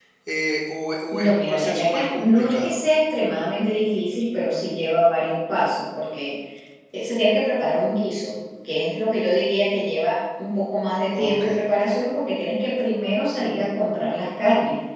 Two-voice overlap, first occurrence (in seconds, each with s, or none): 1.1 s